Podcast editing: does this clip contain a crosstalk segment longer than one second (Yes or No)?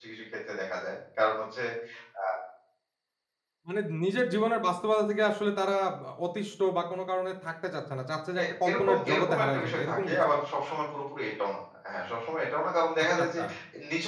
Yes